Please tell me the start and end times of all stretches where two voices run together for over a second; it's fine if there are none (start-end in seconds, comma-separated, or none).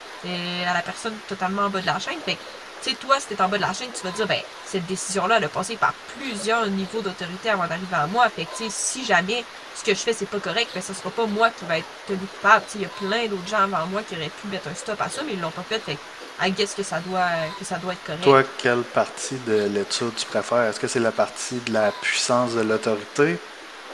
none